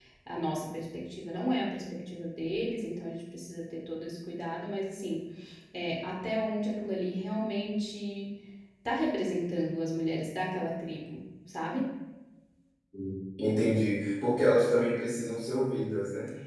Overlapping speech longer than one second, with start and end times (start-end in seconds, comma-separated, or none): none